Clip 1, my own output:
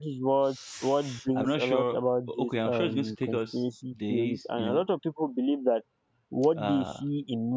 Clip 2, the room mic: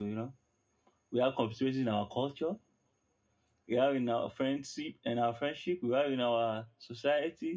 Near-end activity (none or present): present